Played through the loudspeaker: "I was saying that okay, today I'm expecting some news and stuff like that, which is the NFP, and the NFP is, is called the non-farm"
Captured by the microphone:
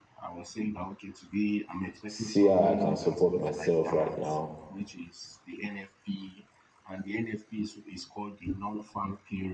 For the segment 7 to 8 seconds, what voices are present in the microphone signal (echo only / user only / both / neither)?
echo only